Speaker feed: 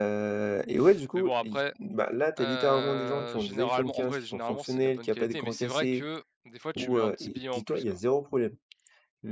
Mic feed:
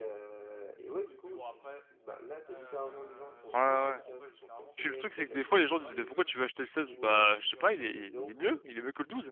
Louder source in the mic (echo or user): user